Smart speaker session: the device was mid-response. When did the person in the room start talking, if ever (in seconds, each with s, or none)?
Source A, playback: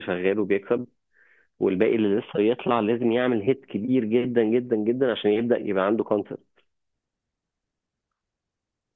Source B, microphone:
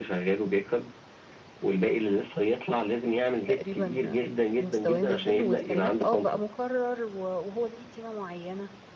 3.5 s